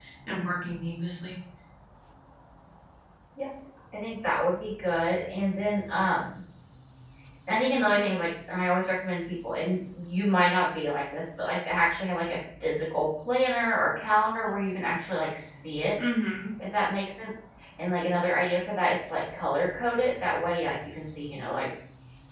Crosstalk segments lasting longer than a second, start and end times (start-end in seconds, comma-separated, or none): none